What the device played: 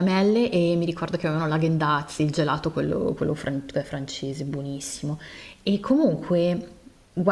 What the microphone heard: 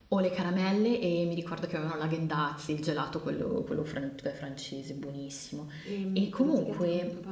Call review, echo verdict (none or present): present